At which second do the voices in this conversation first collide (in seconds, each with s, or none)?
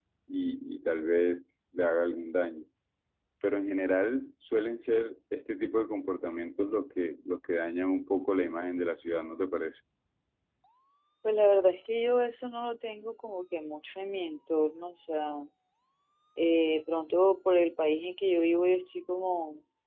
none